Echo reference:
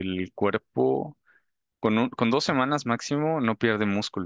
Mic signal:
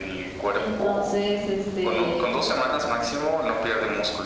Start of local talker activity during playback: 0.5 s

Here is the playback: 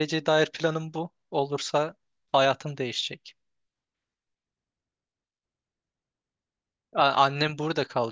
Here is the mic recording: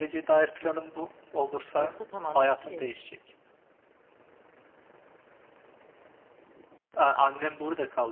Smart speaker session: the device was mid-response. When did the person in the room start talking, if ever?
1.8 s

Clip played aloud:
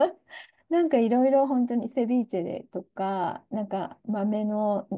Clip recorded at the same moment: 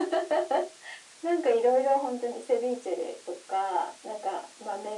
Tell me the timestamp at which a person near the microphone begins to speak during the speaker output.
none

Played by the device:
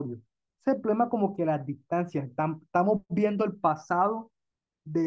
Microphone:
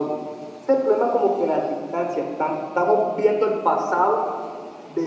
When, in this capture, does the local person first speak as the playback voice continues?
none

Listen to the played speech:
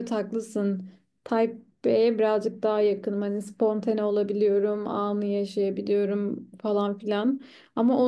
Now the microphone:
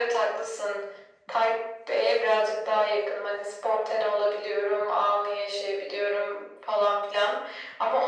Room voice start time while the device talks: none

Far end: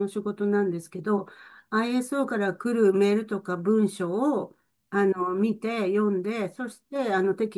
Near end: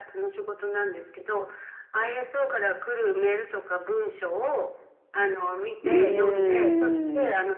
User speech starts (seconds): 5.8 s

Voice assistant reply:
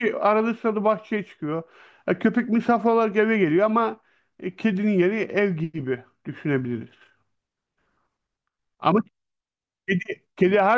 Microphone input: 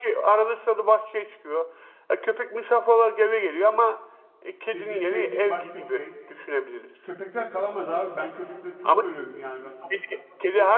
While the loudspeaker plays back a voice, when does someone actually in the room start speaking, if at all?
4.7 s

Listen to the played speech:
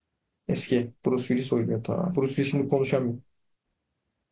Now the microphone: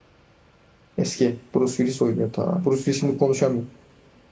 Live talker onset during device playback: none

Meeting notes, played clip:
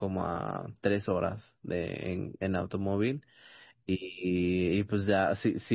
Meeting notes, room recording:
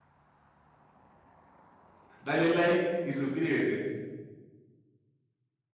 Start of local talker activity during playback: 2.2 s

